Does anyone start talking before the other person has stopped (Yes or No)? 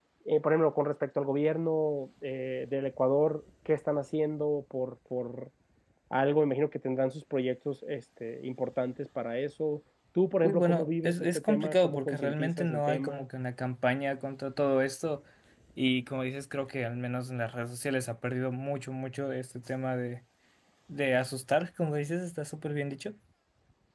Yes